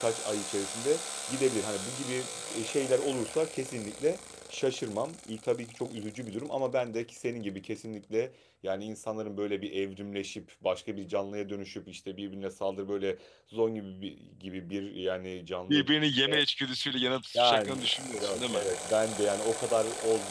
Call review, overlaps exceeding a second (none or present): present